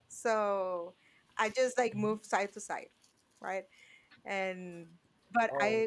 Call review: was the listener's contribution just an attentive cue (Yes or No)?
Yes